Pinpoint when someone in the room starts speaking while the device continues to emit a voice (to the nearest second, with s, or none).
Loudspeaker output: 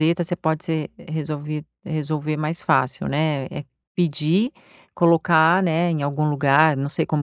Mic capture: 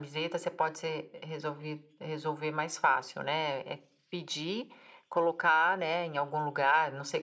none